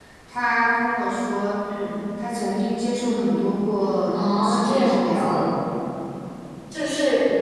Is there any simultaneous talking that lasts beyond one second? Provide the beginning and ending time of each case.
4.1-5.4

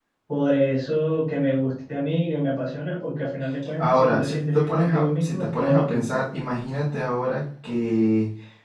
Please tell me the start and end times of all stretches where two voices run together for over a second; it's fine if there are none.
3.8-6.2

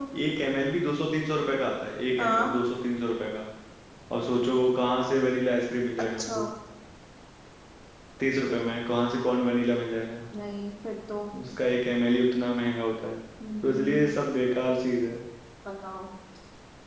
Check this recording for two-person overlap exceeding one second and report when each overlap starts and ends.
none

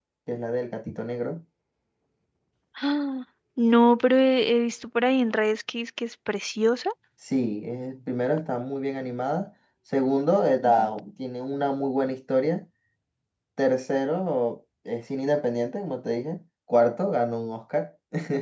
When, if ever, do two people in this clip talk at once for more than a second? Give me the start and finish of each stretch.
none

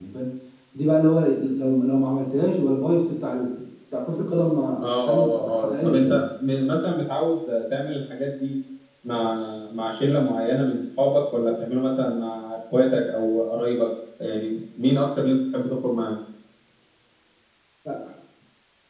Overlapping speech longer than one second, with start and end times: 4.8-6.2

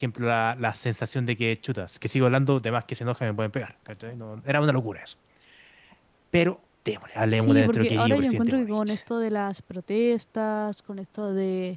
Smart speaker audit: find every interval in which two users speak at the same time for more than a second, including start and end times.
7.4-9.0

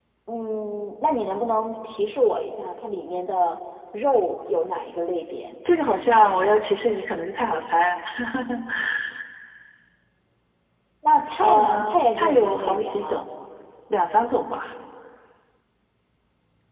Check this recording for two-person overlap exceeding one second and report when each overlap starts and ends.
11.4-13.2

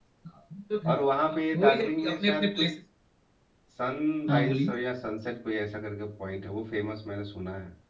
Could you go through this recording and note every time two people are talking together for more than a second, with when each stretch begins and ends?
1.3-2.6

